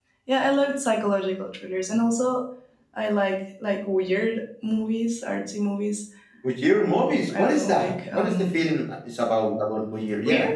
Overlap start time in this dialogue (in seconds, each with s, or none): 6.7 s